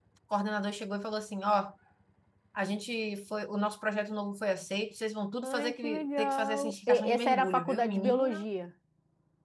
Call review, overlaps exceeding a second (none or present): present